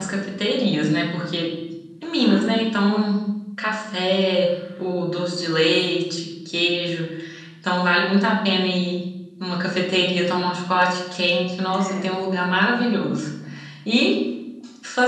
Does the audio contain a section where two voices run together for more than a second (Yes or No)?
No